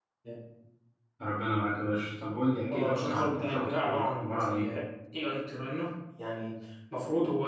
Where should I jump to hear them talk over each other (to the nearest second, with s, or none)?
3 s